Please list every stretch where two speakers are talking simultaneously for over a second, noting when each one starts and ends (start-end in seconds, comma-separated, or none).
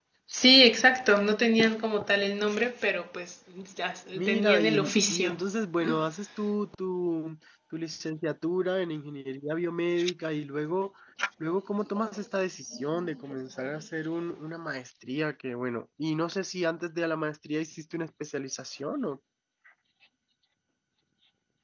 4.2-5.3